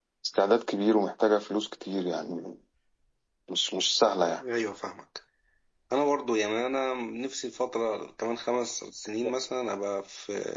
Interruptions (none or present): none